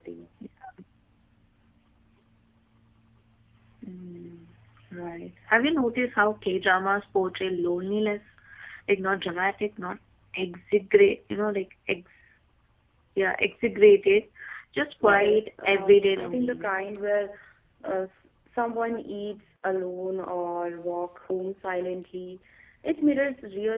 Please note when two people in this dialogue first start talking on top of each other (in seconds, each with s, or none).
15.0 s